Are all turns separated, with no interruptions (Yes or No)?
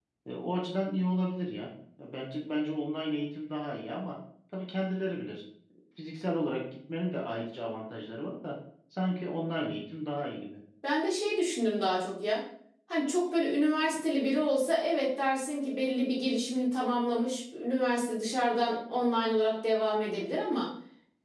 Yes